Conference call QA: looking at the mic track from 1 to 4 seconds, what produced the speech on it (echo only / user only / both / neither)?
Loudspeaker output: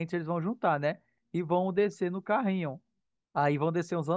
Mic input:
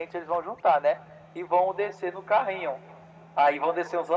echo only